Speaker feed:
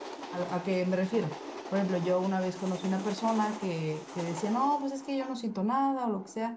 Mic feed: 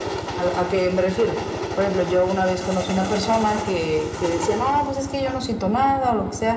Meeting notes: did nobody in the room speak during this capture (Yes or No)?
Yes